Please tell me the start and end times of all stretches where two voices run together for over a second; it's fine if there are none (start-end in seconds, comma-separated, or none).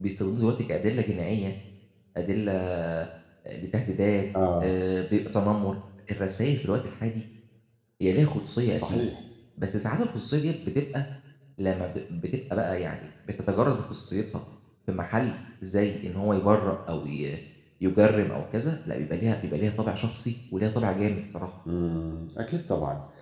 none